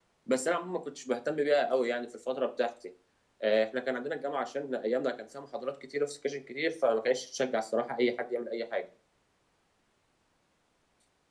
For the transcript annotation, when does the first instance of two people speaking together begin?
none

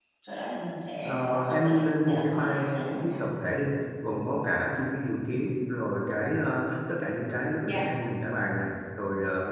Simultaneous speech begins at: 1.1 s

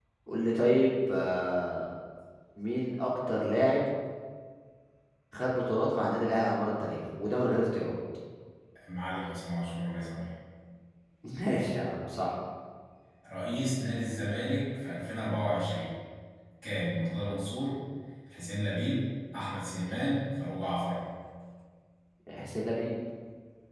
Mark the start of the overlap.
none

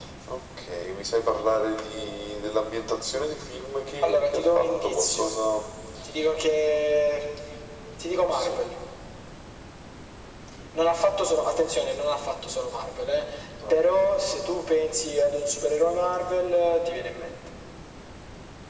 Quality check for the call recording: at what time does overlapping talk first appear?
4.0 s

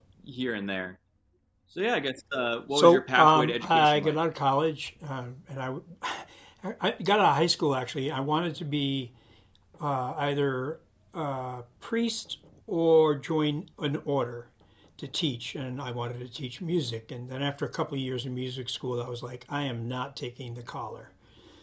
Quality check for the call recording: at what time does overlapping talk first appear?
2.7 s

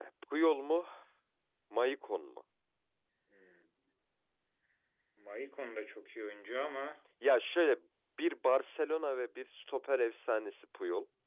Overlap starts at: none

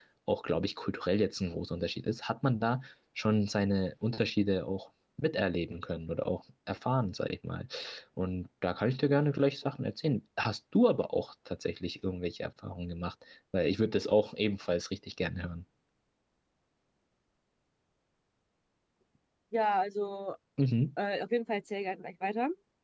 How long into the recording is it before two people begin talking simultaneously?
none

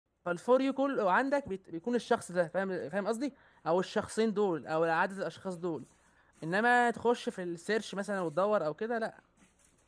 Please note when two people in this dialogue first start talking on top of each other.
none

